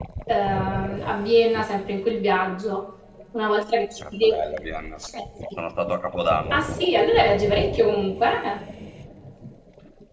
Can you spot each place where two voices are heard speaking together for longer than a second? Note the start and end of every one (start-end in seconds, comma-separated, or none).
none